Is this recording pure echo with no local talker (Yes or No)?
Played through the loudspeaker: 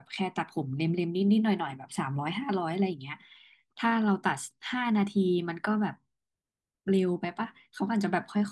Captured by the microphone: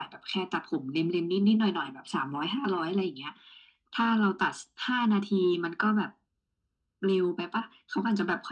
Yes